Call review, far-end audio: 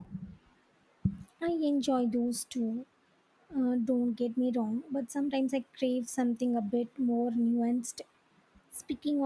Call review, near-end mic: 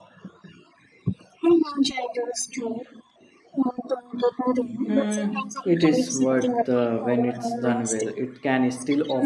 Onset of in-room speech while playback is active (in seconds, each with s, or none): 4.9 s